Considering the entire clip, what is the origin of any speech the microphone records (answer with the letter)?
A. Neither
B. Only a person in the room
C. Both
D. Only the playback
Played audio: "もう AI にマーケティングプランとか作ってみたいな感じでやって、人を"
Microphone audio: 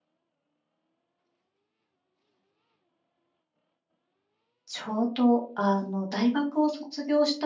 B